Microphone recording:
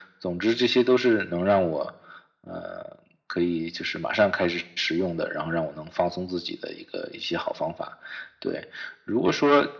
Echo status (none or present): present